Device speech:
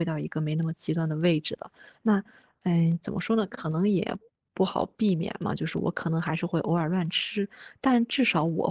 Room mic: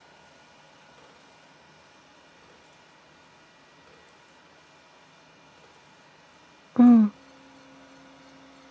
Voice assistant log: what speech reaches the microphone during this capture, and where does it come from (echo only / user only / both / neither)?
user only